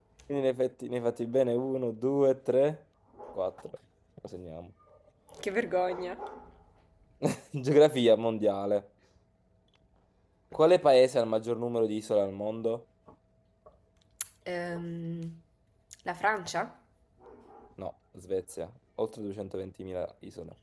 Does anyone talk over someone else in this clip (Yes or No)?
No